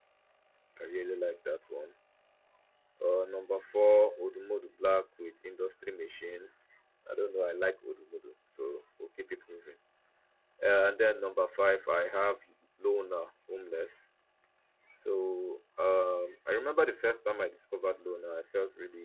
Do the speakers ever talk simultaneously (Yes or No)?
No